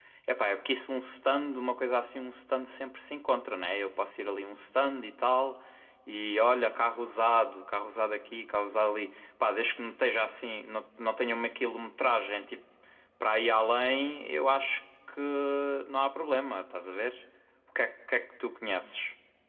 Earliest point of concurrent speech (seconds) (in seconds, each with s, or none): none